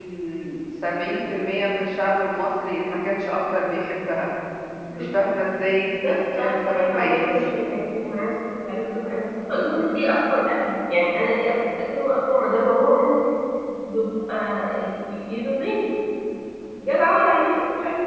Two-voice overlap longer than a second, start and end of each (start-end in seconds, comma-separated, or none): 6.0-7.2